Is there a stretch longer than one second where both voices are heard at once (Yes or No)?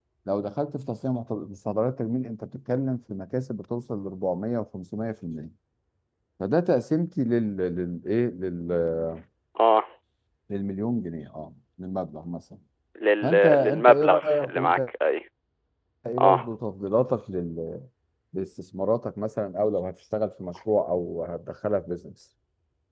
Yes